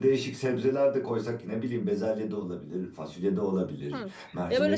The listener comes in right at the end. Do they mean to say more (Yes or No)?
Yes